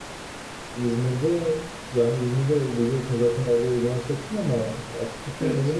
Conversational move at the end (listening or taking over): listening